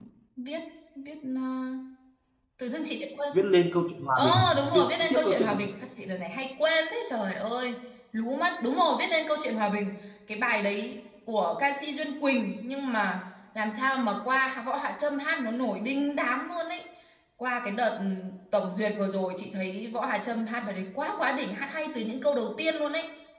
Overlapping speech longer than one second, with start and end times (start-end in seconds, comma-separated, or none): 4.2-5.6